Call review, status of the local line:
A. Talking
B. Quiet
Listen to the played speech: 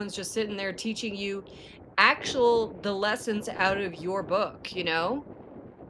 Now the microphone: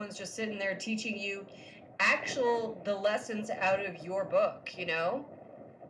B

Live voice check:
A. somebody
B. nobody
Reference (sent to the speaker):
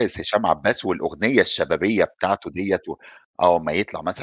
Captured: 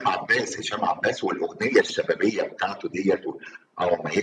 B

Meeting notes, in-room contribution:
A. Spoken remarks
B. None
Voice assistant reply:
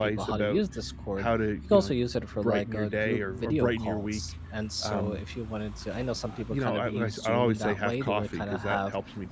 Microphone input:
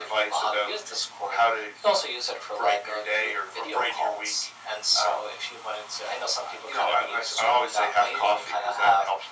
B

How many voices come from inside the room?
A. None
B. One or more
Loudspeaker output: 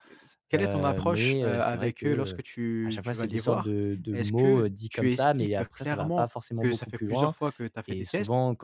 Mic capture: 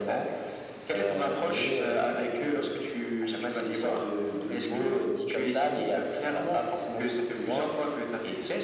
A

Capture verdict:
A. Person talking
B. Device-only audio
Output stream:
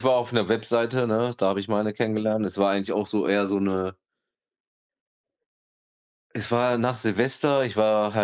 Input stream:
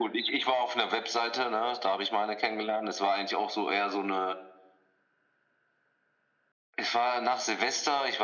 B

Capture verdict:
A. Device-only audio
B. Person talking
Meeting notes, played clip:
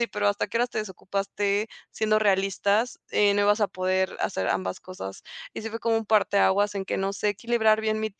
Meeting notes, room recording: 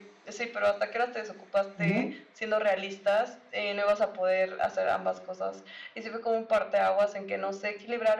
B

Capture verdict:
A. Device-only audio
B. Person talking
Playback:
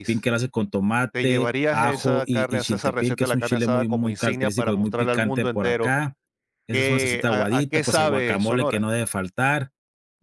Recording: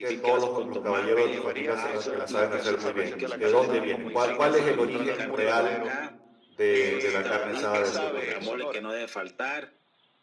B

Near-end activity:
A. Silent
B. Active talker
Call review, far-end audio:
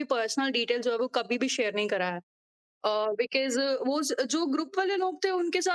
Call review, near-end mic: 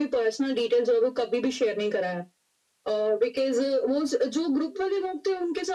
A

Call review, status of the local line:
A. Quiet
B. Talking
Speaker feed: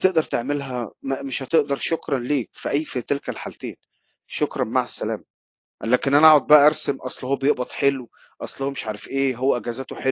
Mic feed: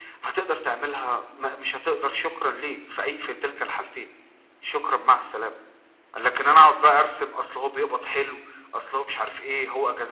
A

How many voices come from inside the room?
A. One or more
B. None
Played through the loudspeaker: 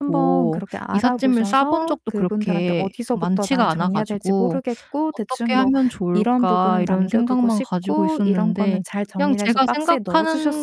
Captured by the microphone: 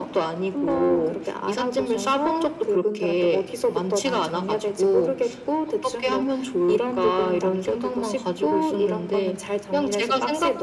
B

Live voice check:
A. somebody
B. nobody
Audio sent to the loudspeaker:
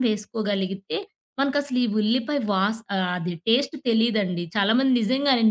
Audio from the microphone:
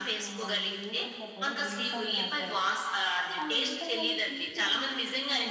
A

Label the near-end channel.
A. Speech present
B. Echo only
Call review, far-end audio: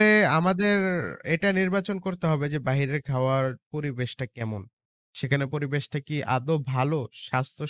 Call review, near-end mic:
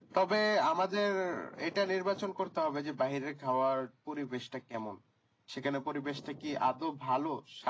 B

